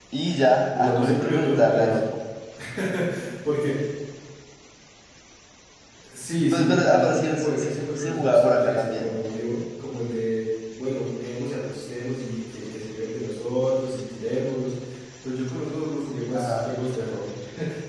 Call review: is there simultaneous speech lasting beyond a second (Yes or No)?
Yes